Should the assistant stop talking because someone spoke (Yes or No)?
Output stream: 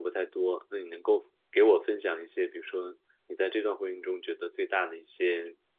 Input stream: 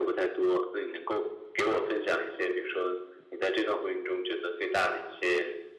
No